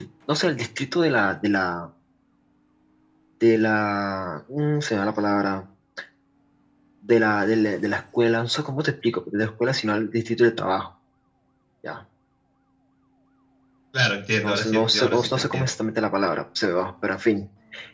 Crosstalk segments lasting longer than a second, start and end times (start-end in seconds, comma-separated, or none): 14.4-15.6